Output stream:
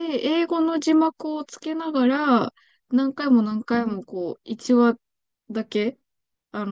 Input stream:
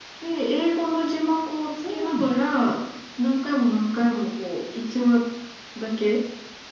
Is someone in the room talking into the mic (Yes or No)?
Yes